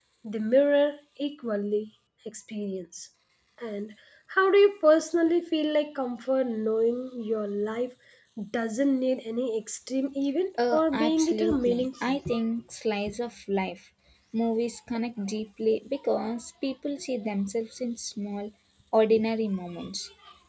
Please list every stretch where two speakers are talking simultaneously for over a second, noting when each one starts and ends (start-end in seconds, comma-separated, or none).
10.7-12.2